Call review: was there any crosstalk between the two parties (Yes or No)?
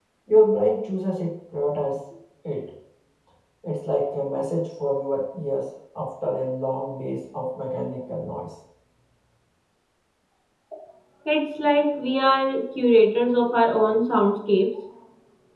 No